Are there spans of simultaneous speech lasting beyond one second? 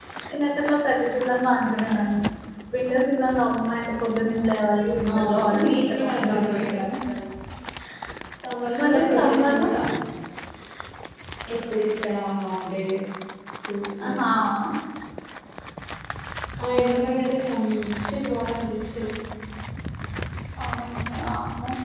Yes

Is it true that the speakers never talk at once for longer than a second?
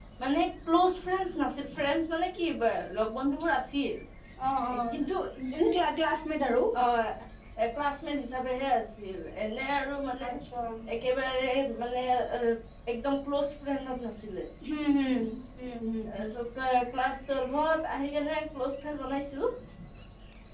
Yes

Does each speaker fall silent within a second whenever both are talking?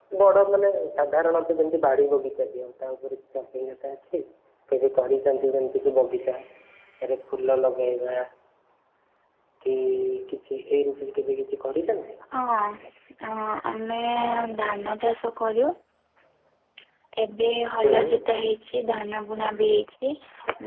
Yes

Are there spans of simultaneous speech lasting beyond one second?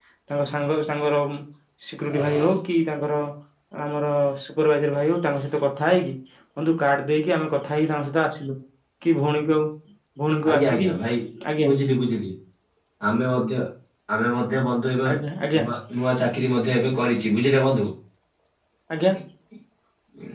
No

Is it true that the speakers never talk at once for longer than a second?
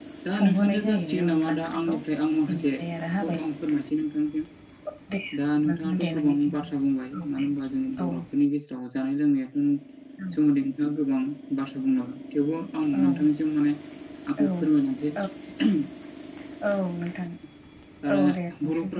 No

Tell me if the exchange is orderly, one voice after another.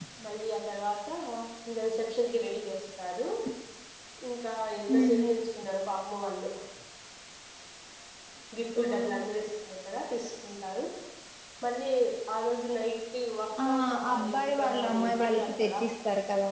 No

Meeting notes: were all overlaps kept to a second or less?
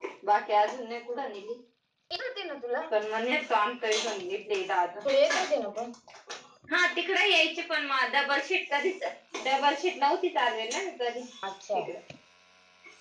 Yes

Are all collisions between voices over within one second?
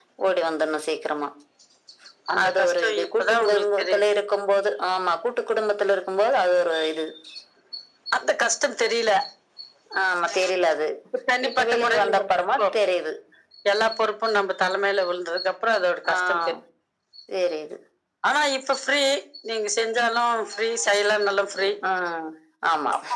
No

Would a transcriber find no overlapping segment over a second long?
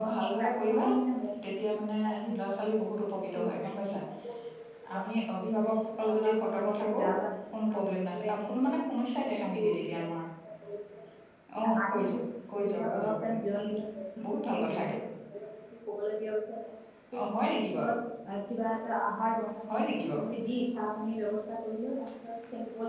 No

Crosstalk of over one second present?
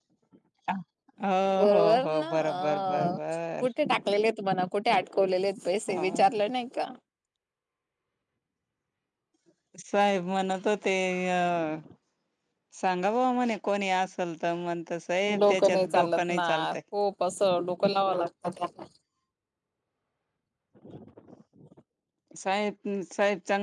Yes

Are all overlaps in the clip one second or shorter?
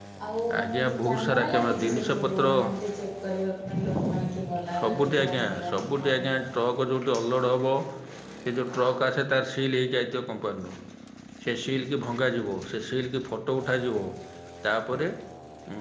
No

